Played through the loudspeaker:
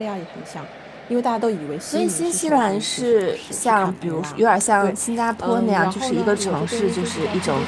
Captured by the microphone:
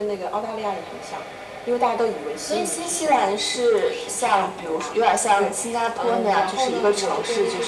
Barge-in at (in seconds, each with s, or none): none